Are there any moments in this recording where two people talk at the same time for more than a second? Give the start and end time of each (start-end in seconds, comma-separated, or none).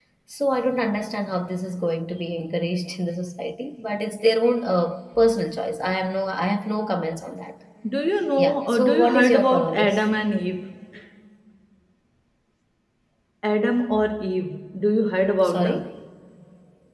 8.4-10.0